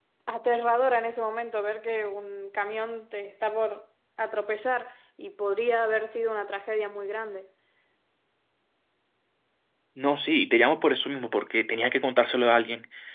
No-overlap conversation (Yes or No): Yes